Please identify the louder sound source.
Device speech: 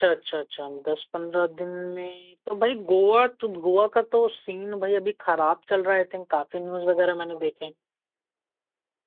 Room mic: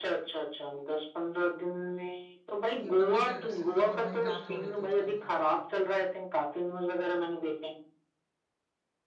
echo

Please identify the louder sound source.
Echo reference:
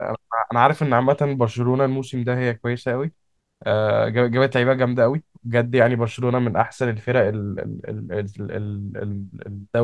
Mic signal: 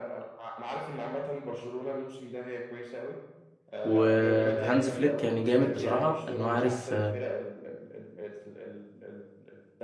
user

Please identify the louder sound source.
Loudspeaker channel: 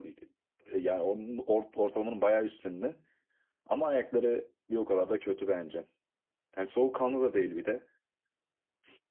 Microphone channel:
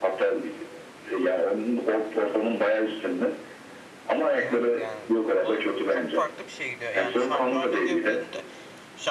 echo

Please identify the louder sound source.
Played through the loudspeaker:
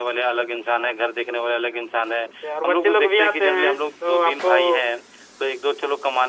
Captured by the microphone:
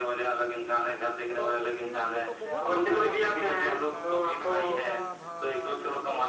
echo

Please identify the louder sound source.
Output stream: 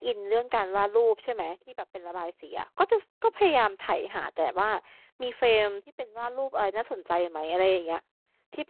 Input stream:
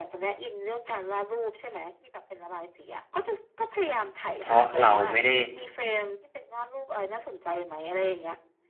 user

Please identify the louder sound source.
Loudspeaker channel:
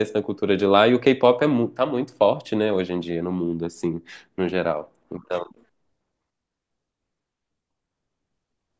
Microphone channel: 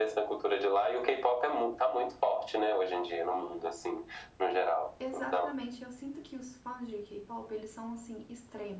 echo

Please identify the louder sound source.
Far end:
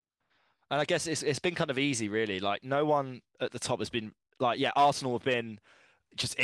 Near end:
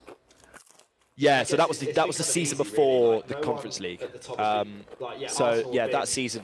user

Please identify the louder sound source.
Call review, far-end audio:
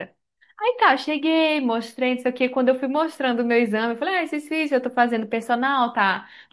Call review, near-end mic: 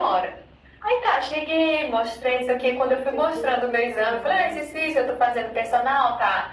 echo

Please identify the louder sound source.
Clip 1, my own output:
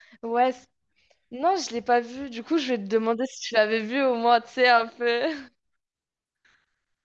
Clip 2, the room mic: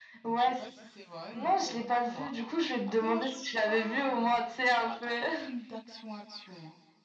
echo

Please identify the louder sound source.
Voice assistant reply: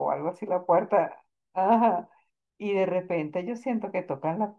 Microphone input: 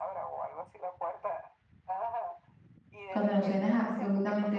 user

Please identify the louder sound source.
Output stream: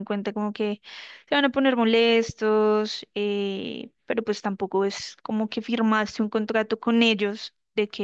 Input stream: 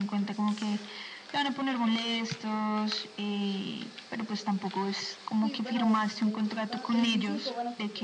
echo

